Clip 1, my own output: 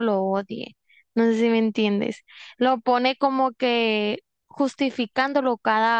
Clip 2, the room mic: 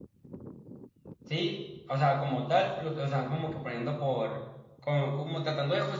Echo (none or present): none